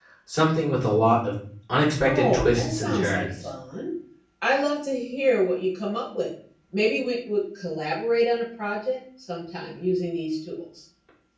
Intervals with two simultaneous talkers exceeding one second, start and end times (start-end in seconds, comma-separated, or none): 2.0-3.3